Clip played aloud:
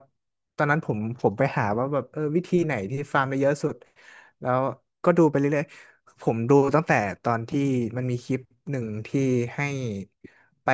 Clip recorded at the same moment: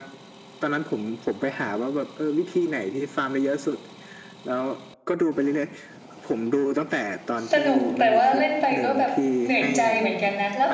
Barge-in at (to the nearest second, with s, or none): 8 s